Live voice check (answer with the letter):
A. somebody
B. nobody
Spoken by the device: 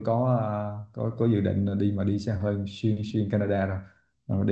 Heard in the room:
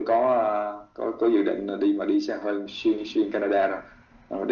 B